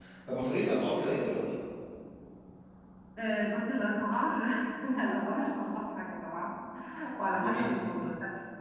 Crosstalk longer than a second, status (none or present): none